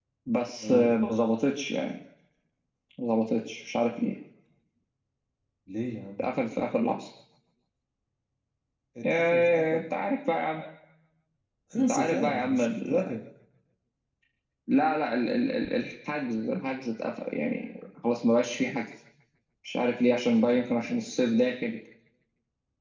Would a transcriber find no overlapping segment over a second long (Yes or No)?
No